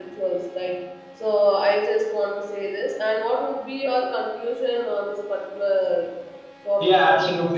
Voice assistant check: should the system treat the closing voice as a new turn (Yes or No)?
Yes